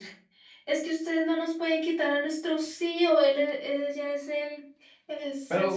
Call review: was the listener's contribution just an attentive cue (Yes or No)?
No